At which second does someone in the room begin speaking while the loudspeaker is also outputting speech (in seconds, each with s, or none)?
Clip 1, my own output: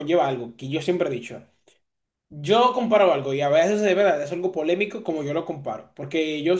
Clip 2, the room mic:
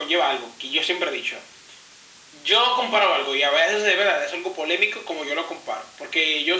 none